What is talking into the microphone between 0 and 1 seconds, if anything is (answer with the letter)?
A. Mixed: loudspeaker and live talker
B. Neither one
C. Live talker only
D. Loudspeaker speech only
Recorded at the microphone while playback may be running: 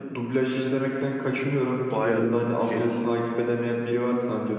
D